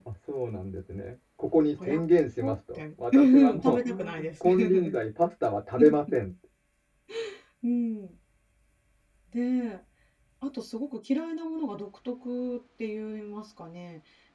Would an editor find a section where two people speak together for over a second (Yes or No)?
Yes